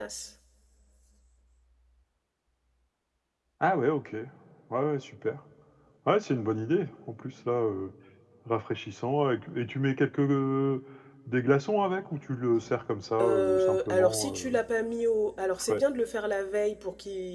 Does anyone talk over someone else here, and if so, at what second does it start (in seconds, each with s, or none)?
13.2 s